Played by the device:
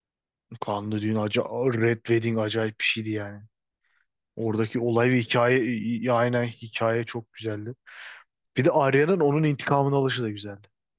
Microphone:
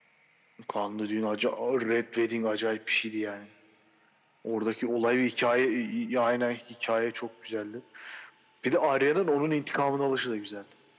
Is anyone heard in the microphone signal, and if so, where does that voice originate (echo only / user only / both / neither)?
echo only